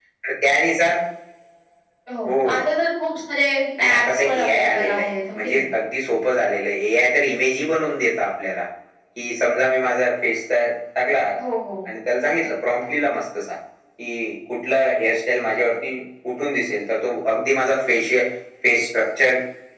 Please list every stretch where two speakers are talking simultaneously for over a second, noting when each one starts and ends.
3.9-5.6

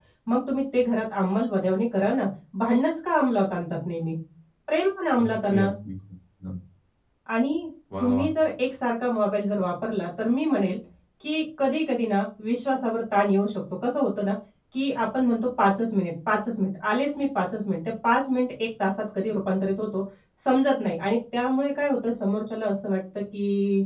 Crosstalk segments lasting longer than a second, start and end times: none

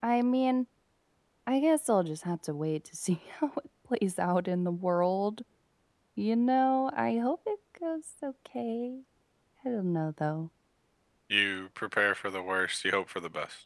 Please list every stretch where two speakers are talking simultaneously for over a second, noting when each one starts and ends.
none

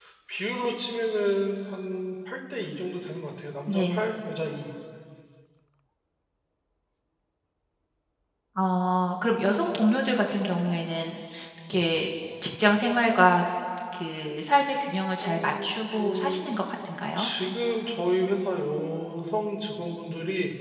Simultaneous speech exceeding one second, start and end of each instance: 15.2-16.5

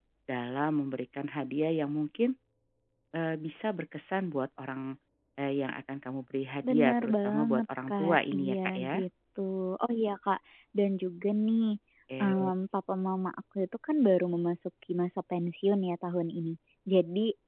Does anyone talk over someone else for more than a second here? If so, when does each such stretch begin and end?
6.6-9.0

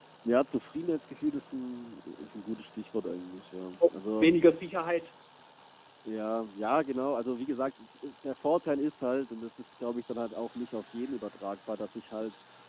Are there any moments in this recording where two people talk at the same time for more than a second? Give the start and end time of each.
none

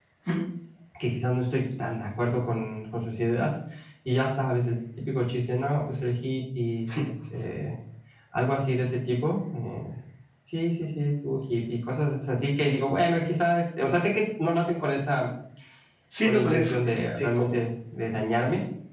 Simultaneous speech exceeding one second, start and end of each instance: 16.2-17.4

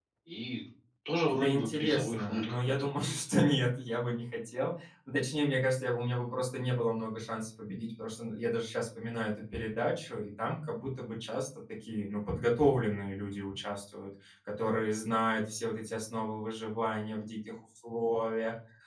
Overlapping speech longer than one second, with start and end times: 1.3-3.2

